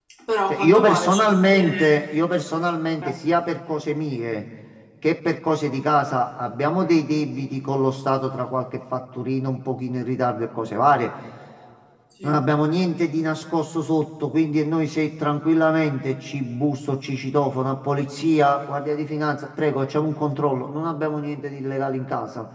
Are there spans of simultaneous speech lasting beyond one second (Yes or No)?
Yes